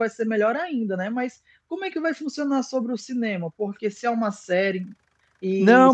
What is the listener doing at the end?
taking over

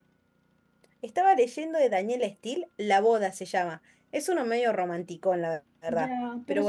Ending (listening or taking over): taking over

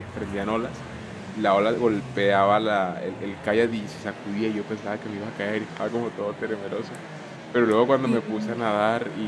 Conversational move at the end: listening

